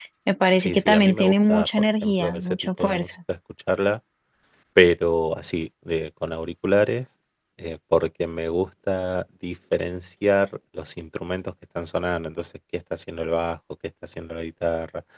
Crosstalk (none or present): present